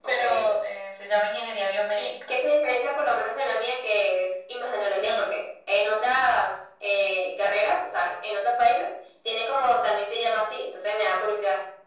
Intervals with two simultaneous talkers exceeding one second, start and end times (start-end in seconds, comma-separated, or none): none